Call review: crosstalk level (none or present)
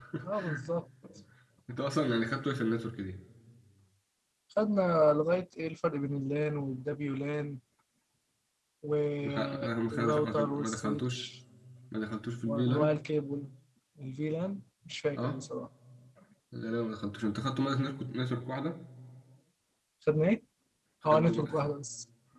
present